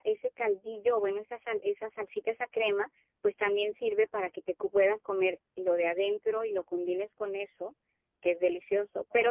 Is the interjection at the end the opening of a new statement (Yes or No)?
No